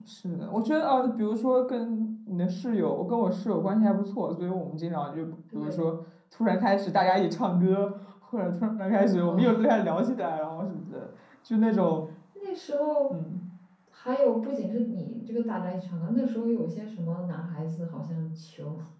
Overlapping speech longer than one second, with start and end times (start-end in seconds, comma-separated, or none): none